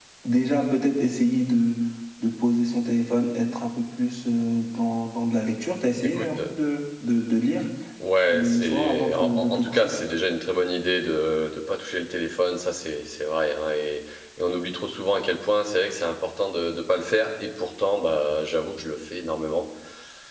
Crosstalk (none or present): present